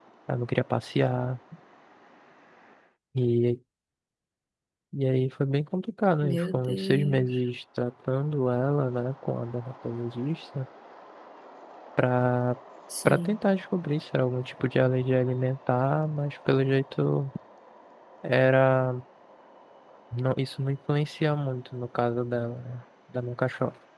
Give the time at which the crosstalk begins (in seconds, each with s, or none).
6.2 s